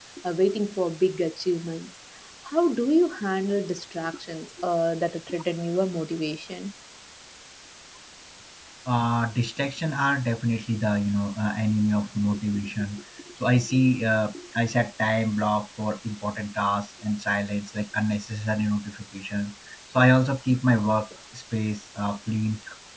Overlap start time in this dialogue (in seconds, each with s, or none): none